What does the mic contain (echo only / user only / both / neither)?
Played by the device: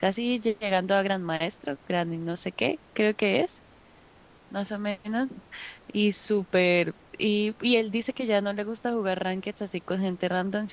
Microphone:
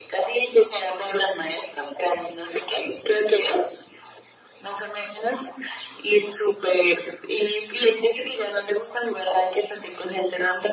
echo only